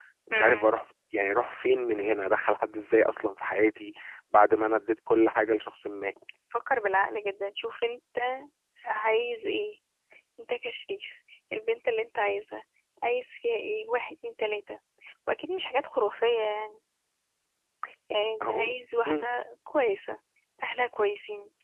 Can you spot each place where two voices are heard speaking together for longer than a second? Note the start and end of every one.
none

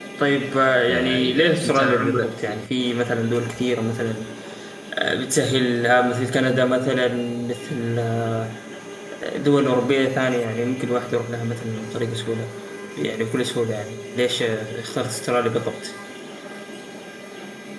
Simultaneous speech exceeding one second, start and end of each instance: 0.9-2.6

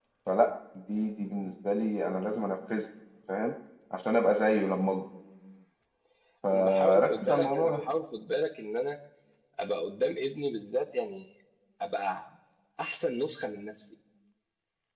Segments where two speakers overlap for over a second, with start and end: 6.5-7.8

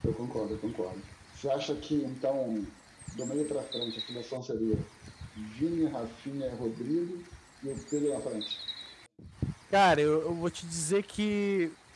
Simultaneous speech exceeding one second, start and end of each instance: none

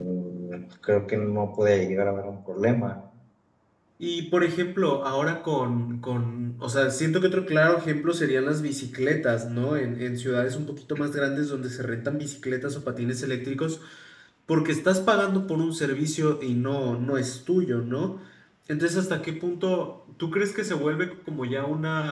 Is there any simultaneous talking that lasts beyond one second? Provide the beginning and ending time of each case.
none

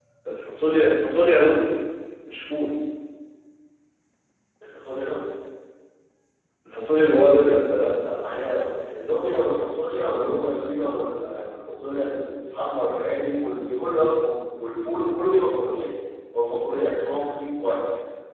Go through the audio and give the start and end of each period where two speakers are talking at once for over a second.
none

